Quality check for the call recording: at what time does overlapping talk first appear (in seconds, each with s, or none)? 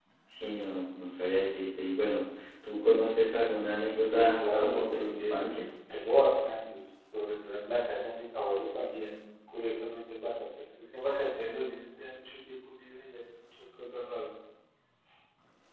3.9 s